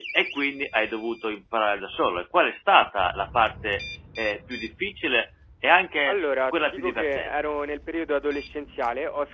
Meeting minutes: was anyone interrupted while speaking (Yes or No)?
Yes